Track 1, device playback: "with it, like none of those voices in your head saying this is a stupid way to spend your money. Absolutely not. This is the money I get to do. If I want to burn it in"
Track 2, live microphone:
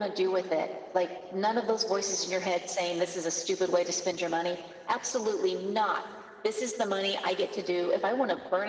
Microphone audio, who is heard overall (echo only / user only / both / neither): echo only